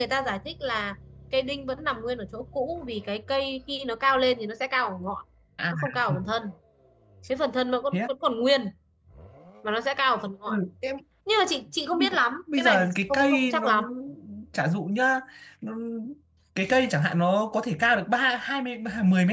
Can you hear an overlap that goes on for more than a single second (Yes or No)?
Yes